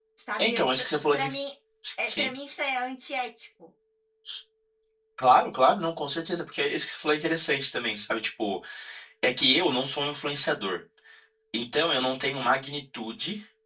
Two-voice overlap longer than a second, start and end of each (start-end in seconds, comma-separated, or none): none